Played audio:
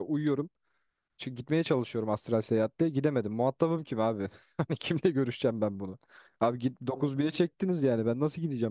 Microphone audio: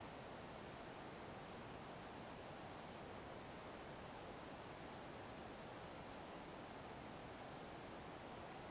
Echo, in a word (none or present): none